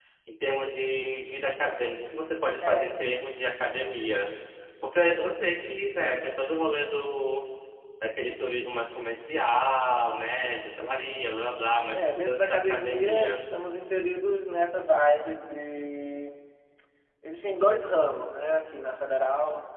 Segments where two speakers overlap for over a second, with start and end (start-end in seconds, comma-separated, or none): 11.9-13.4